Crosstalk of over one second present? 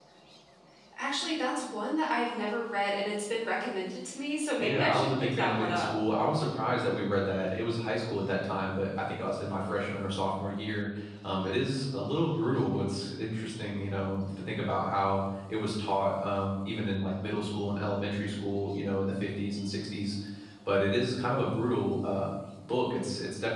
Yes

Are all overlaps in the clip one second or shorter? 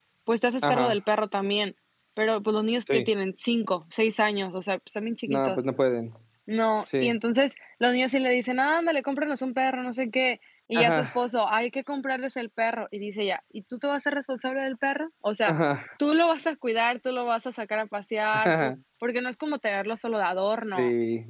Yes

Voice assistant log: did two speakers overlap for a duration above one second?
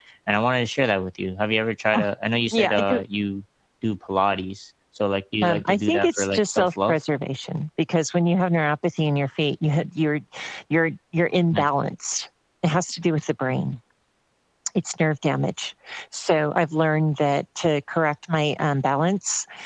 Yes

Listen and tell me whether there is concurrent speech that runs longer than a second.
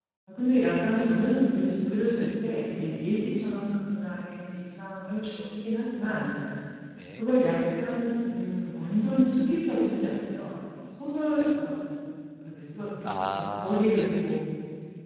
Yes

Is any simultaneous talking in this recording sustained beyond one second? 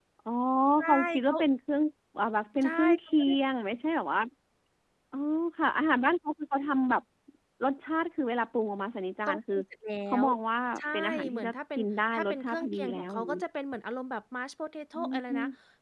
Yes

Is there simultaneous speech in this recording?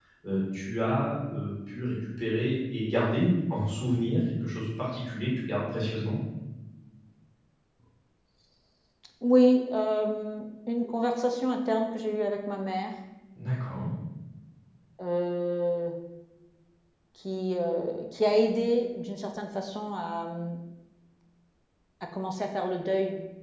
No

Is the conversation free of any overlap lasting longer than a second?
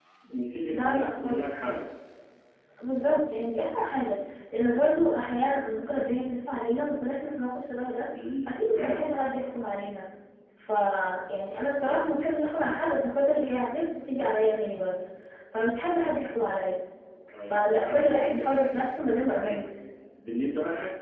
No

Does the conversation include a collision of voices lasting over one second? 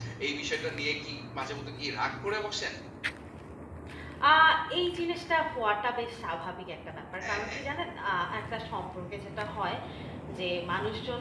No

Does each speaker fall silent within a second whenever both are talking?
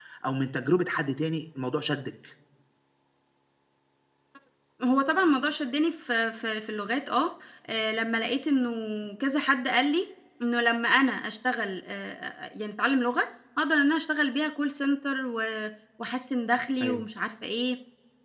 Yes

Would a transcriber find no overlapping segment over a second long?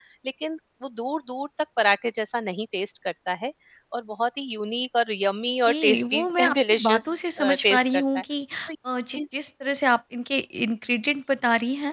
No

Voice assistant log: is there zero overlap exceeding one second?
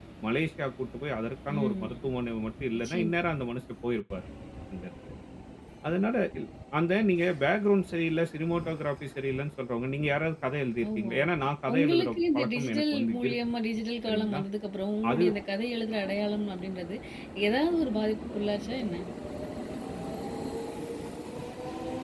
No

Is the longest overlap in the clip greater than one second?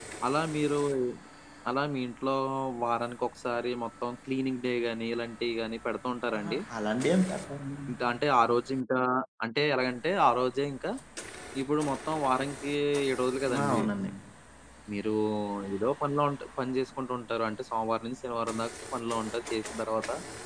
No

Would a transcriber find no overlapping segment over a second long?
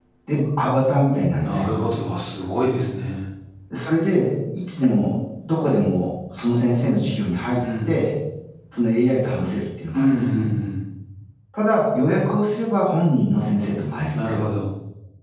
Yes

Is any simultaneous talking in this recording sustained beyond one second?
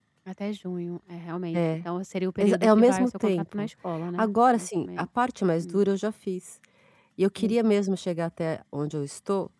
Yes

